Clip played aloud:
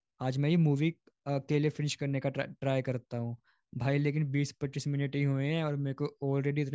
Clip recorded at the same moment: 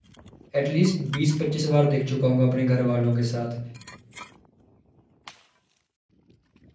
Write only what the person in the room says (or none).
एटलीस्ट बीस पच्चीस बार देख चुका हूँ अपने घर वालों के साथ